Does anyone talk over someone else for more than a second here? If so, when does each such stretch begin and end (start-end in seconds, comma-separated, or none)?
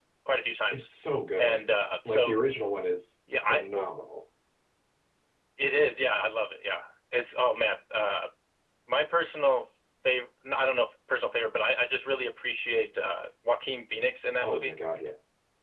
none